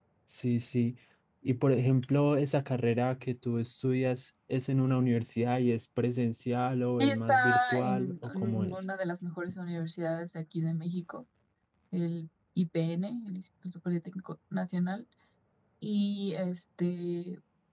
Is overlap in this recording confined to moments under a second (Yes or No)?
No